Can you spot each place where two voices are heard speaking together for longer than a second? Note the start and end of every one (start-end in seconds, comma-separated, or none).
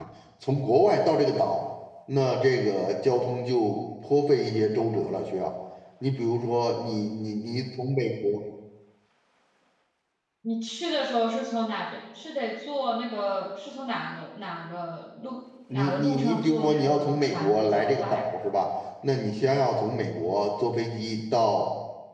15.7-18.3